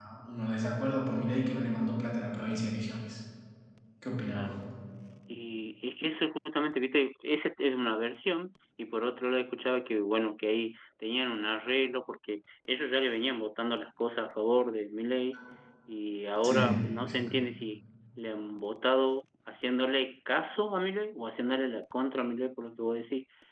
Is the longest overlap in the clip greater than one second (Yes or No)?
No